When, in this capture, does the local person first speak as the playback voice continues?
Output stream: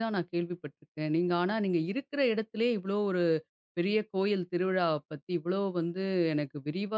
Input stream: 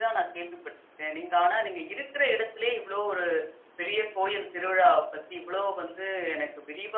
none

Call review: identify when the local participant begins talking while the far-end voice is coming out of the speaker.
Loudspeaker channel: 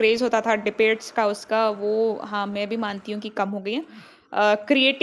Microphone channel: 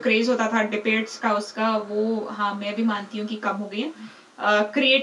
none

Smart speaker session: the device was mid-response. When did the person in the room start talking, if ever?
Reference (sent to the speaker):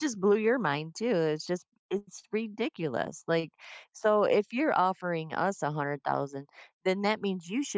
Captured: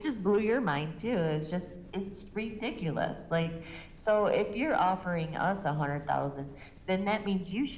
none

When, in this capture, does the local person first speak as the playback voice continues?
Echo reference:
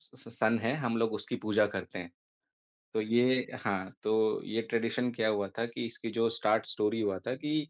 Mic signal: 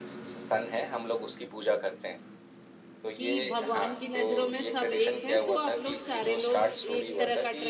3.2 s

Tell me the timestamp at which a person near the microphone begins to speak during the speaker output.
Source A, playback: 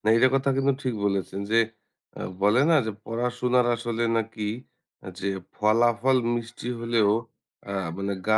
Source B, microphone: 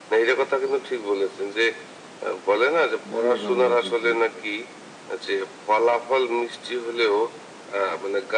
3.1 s

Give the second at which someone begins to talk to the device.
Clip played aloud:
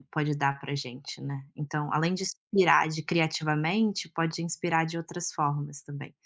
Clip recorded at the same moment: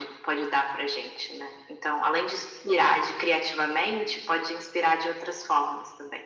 none

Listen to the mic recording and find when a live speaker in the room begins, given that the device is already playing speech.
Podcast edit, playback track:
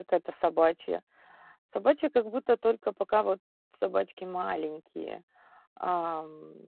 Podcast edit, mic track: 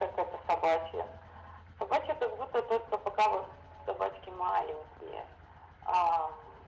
none

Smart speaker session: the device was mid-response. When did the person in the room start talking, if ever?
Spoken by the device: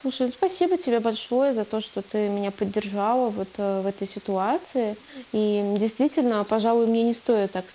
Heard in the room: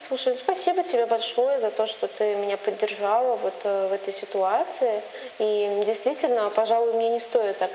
none

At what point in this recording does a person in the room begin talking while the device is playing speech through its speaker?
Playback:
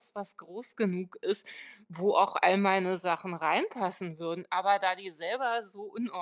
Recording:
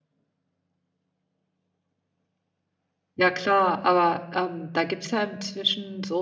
3.2 s

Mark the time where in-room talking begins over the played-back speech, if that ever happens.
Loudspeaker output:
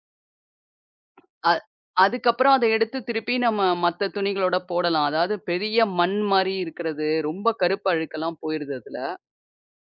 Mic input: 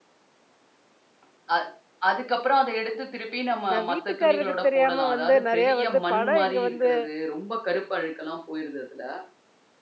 3.7 s

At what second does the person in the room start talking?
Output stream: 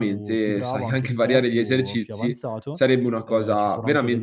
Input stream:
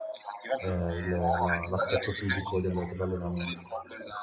0.6 s

